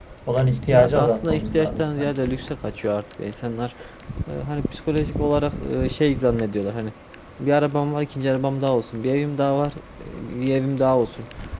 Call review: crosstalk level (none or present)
present